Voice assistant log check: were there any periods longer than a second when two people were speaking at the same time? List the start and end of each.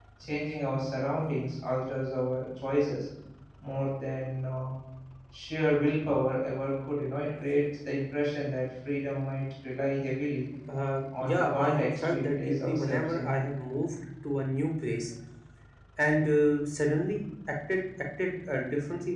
11.2-13.3

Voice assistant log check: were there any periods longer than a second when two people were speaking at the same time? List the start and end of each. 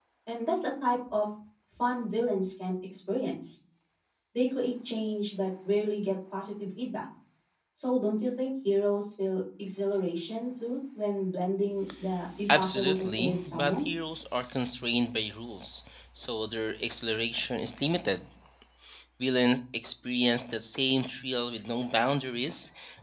12.6-13.9

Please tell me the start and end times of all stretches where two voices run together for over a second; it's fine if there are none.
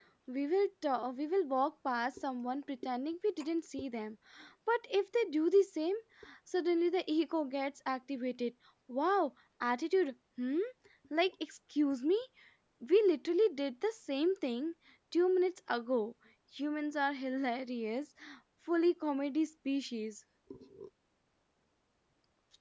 none

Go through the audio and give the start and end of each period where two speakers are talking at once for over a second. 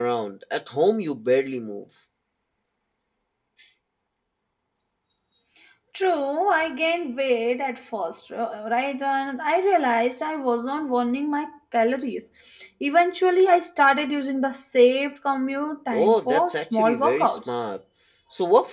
15.9-17.6

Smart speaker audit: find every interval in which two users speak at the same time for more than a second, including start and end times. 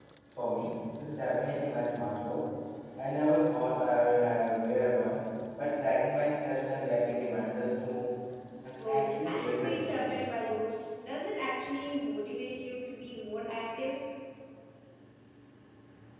8.8-10.2

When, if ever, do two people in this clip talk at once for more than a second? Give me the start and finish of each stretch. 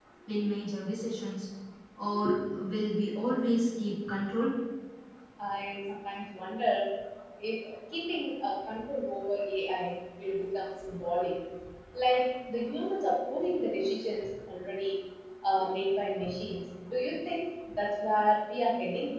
none

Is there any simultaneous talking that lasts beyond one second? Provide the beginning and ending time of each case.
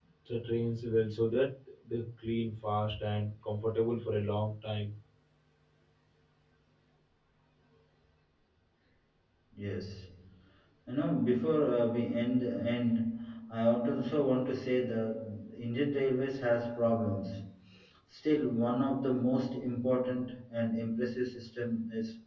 none

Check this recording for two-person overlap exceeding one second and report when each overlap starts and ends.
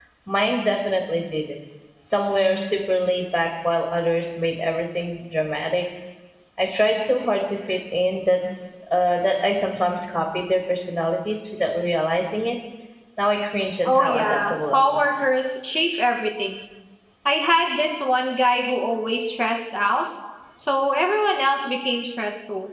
13.8-15.2

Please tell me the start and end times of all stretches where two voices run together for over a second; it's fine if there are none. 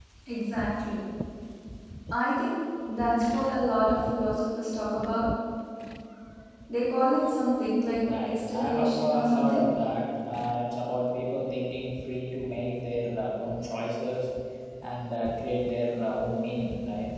8.2-9.6

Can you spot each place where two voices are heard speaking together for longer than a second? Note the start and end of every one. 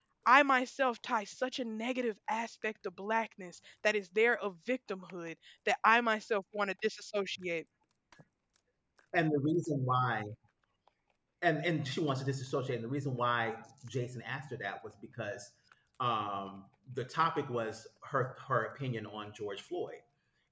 none

